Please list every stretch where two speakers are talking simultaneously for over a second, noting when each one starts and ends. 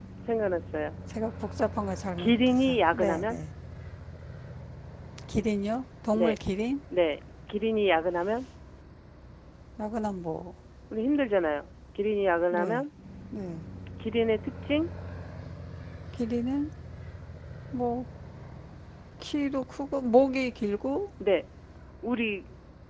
2.2-3.4

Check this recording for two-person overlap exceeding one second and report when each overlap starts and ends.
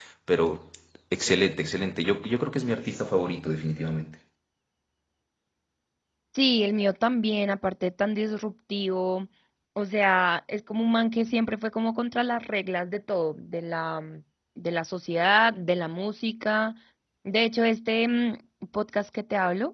none

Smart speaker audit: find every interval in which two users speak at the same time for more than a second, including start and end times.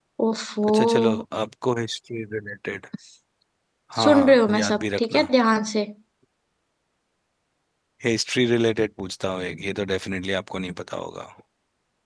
4.0-5.3

